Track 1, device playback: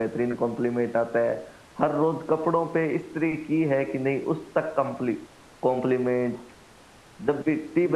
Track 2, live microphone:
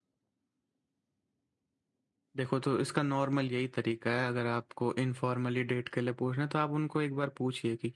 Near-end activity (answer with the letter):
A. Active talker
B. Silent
A